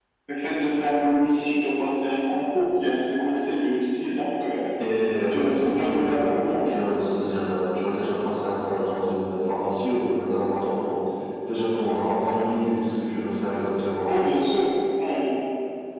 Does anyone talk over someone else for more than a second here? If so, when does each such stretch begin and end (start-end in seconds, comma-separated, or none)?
5.3-6.7